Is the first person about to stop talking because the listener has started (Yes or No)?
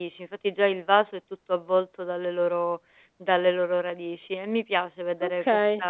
No